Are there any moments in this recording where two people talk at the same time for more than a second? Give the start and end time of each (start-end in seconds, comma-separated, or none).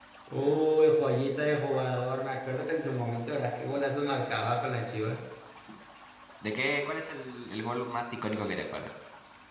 none